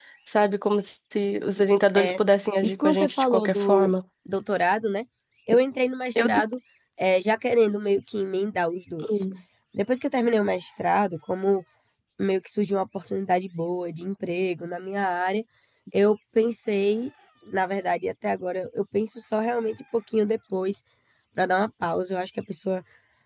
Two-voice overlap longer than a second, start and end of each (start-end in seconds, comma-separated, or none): 2.6-3.9